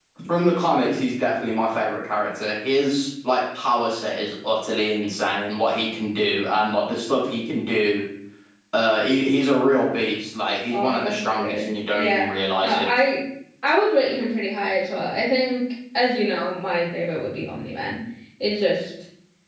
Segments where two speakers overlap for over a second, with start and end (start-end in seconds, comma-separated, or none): 10.7-12.2